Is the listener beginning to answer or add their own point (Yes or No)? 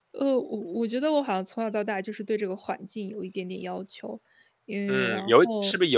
Yes